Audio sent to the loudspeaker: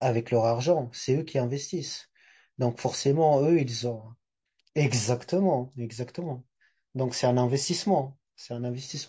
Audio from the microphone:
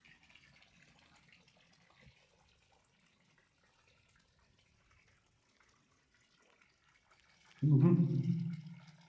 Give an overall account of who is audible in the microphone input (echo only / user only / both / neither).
user only